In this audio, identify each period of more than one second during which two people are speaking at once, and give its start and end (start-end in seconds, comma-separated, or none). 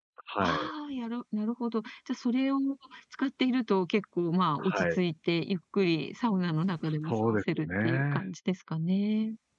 6.8-8.2